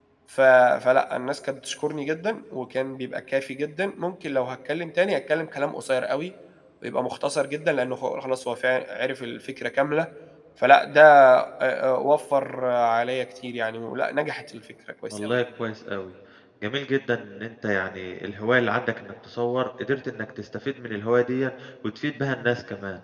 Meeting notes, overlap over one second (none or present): none